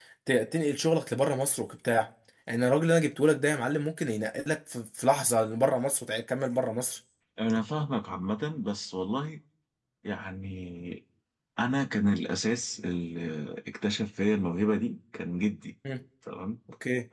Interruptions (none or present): none